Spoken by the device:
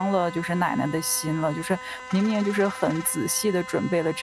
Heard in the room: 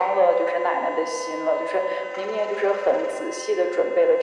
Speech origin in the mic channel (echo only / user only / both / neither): echo only